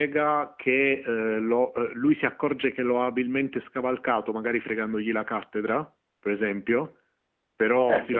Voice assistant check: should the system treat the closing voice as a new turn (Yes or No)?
No